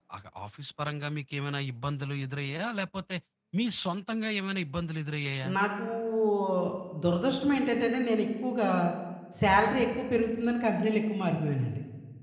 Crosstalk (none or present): none